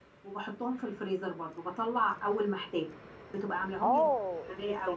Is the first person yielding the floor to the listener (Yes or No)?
Yes